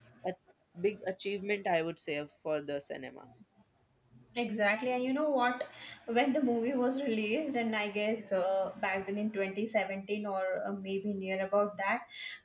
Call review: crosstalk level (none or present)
none